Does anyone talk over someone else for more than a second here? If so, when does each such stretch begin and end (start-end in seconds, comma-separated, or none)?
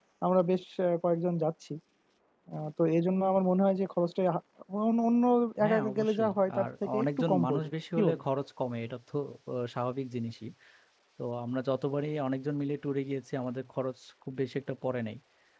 5.6-8.2